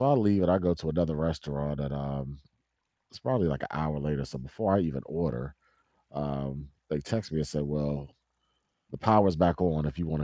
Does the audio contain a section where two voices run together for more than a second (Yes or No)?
No